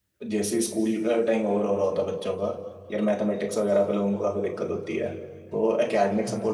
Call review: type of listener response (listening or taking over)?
listening